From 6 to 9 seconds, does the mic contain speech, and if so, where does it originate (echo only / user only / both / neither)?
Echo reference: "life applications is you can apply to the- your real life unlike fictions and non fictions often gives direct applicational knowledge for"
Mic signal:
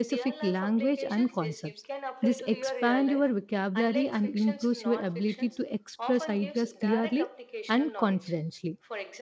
both